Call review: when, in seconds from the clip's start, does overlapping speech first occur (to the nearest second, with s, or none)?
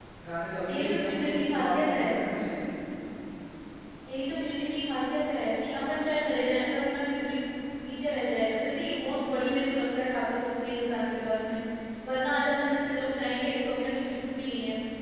1 s